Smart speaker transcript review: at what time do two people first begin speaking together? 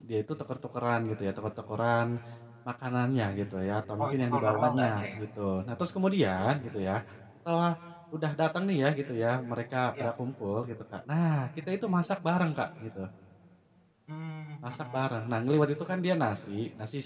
4.0 s

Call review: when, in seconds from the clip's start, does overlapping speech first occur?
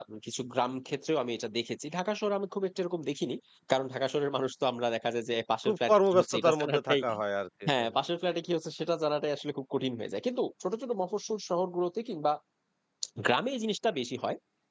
5.7 s

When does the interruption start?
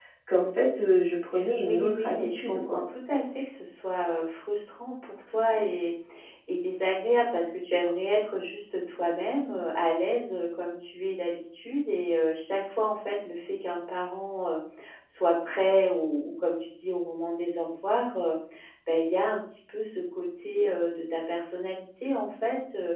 1.6 s

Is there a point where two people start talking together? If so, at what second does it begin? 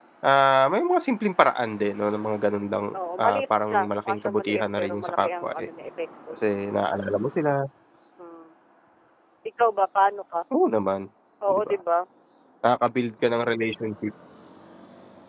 2.9 s

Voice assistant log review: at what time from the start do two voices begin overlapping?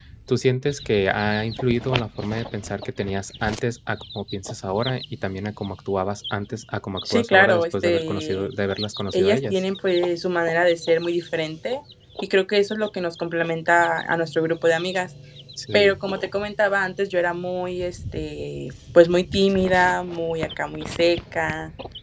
7.1 s

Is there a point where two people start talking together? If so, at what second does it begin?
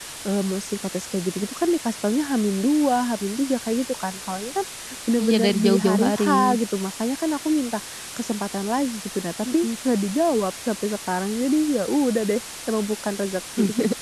5.2 s

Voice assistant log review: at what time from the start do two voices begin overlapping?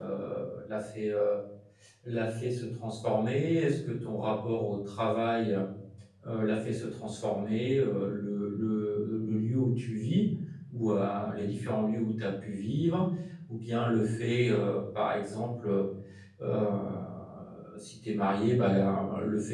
none

